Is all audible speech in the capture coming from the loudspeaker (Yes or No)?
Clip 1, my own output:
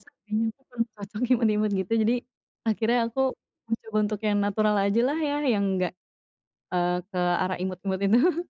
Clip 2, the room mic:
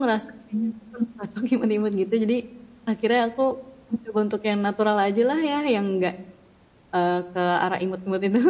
Yes